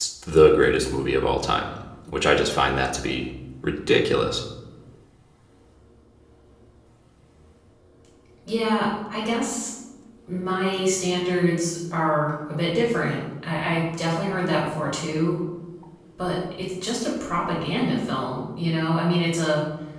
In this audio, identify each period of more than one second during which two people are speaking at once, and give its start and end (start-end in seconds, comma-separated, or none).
none